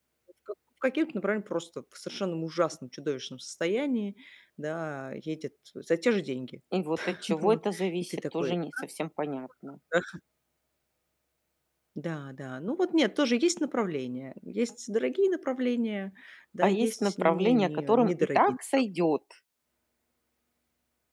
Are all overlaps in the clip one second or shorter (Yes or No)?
No